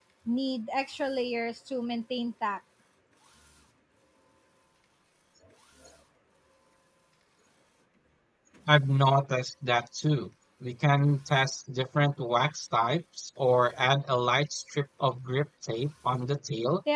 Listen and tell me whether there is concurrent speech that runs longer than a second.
No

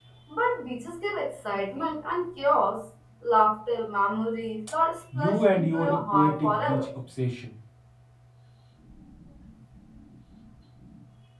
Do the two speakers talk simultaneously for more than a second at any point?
Yes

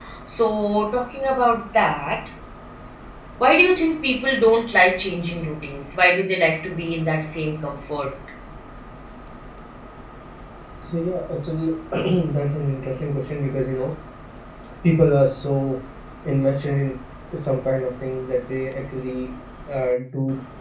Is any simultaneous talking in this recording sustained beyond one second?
No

